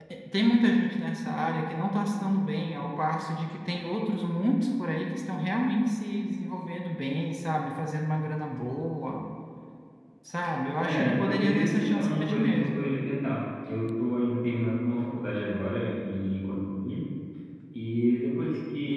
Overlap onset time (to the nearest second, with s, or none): 11 s